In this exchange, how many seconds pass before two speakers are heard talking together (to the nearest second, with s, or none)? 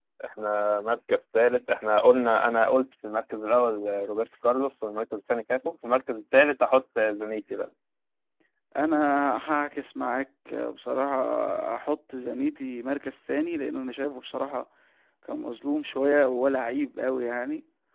none